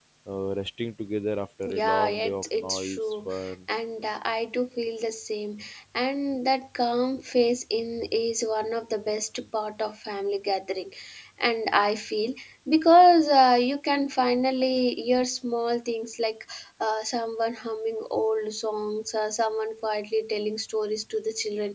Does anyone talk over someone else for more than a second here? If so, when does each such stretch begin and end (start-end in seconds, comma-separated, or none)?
1.6-3.0